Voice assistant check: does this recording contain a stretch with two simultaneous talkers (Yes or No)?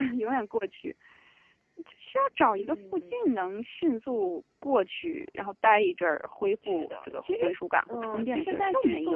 Yes